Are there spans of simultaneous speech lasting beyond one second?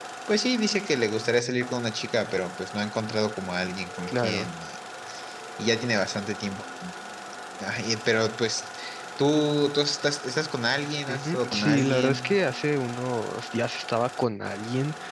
Yes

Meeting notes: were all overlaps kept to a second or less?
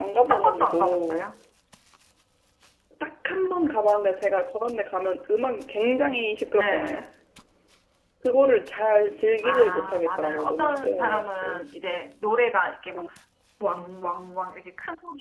No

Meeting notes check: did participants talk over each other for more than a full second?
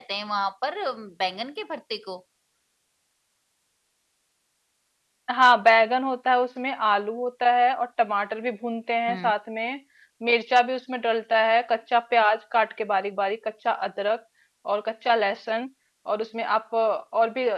No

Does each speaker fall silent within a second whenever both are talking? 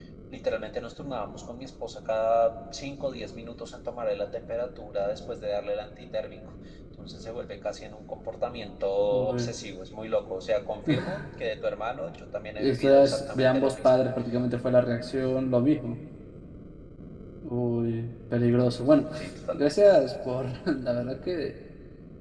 No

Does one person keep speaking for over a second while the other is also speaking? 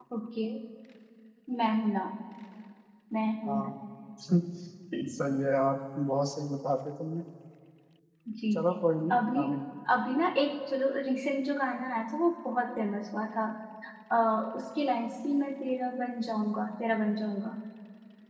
No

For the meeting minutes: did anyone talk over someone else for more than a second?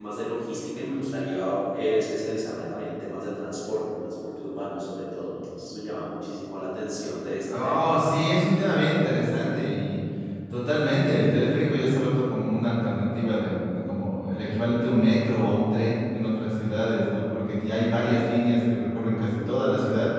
No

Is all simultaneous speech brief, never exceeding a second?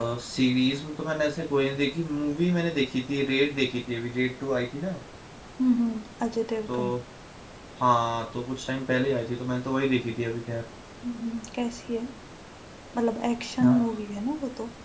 Yes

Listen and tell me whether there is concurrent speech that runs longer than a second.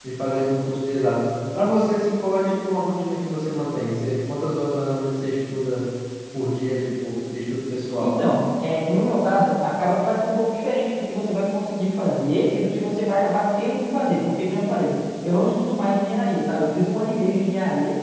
No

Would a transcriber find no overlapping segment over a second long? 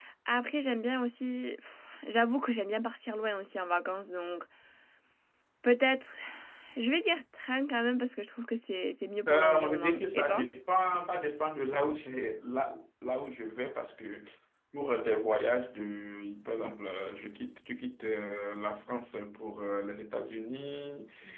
No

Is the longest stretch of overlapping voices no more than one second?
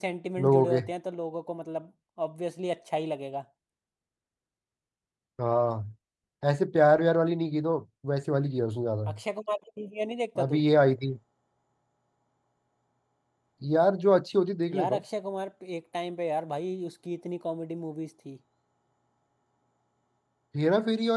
Yes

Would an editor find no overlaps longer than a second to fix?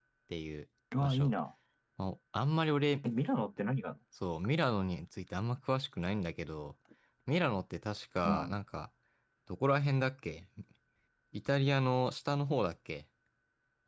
Yes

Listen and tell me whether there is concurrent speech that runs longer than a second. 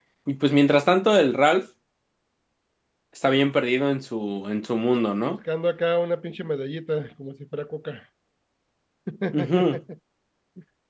No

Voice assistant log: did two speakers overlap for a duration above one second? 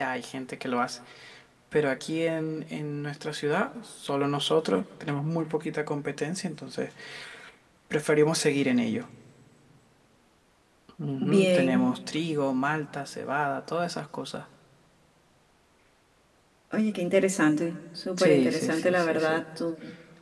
Yes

